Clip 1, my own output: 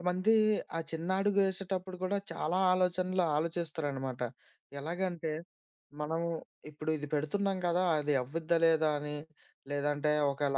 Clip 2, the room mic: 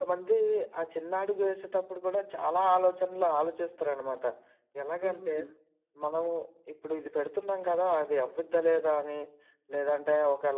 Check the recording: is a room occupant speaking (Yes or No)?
Yes